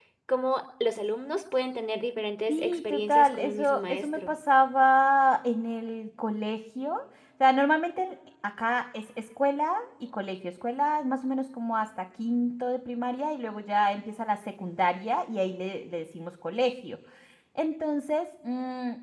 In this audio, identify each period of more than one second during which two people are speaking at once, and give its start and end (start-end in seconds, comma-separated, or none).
2.5-4.3